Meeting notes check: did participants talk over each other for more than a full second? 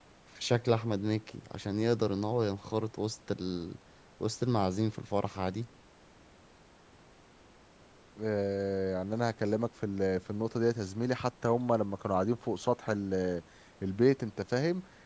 No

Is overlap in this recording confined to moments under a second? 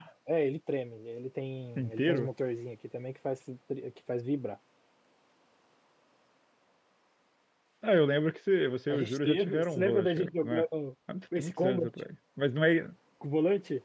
No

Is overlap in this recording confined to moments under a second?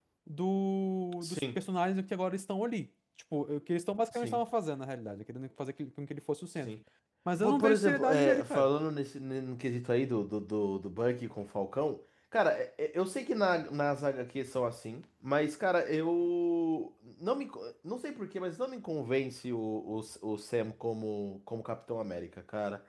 No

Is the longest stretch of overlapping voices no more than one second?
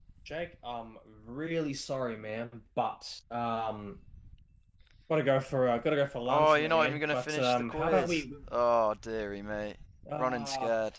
No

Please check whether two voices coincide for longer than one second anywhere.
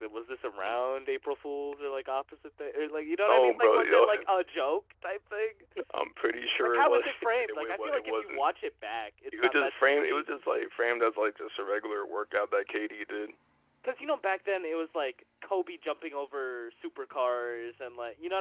Yes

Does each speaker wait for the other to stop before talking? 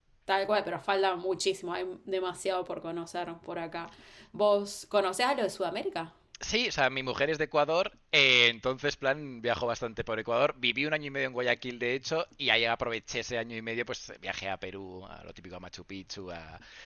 Yes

